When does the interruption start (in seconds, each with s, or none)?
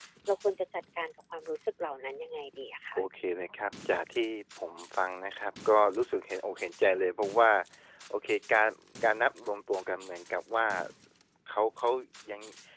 none